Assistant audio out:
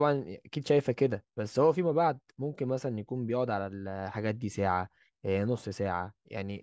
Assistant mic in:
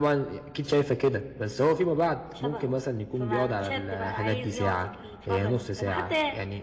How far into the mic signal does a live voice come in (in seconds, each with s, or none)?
2.3 s